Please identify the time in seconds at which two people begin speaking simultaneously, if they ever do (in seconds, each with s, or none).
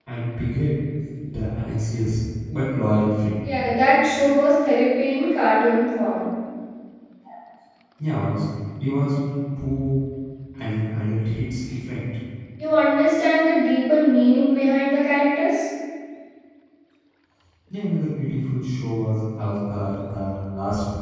none